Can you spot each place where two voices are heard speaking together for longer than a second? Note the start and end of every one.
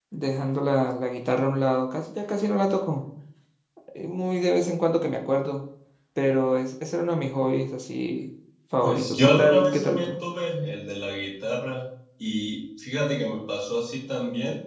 8.8-10.2

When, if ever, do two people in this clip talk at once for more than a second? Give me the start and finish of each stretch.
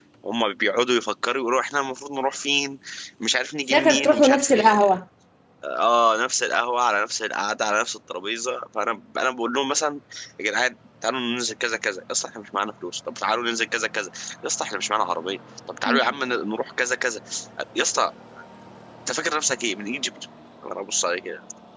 3.7-4.9

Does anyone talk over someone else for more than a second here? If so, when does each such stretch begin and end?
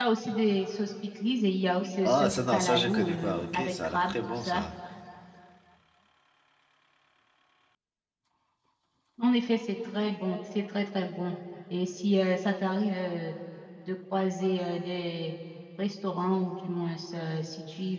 2.0-4.6

